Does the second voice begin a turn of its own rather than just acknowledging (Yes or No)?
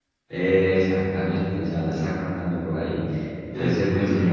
No